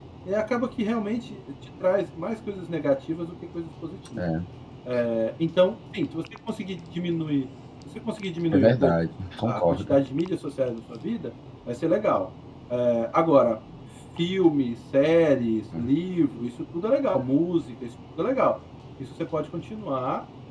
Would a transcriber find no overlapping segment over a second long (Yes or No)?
Yes